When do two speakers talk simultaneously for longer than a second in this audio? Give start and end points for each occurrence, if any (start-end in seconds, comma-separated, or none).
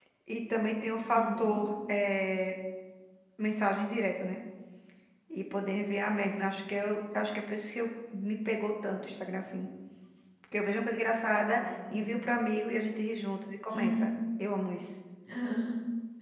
none